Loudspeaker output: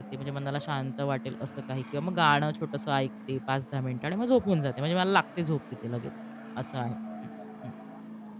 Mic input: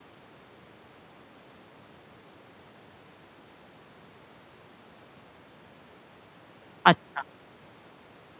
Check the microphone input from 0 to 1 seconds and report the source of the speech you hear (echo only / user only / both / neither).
neither